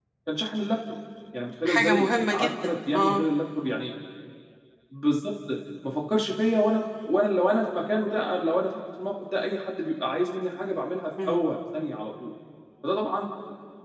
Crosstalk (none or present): present